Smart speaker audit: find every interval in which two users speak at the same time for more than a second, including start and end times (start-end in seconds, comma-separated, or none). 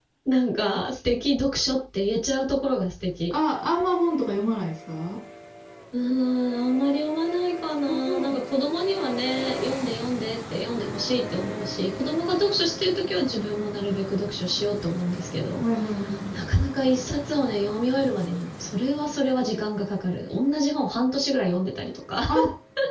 none